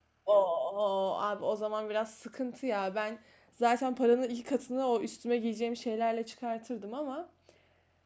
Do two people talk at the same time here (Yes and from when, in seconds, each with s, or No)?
No